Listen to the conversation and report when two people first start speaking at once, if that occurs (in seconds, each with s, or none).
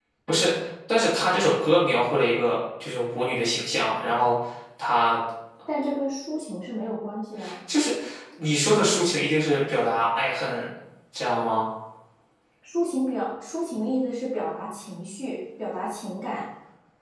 none